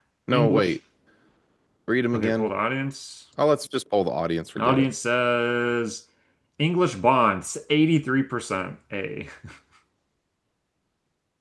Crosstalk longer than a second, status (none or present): none